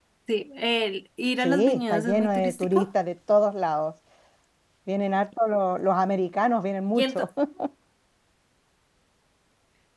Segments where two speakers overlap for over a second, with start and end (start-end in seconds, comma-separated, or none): 1.4-2.9